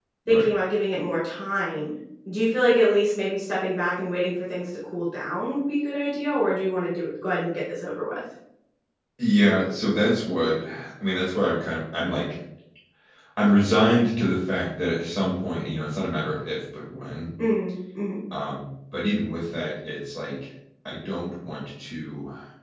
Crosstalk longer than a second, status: none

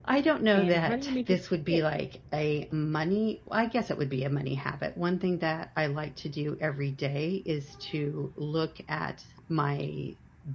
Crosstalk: present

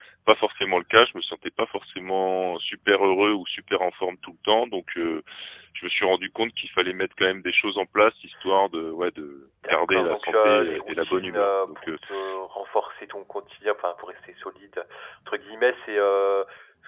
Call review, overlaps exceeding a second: present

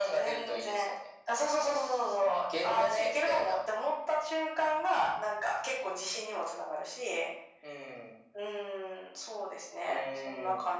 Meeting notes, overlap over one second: present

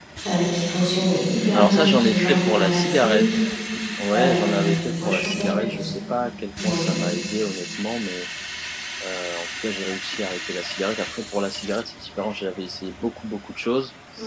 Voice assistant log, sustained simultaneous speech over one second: present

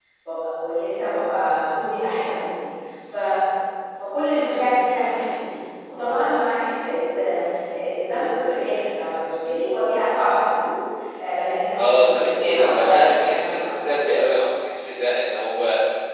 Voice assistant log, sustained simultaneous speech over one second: present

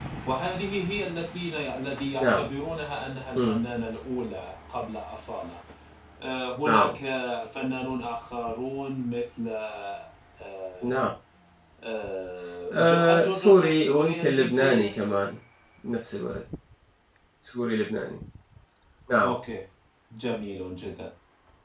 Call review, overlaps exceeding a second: present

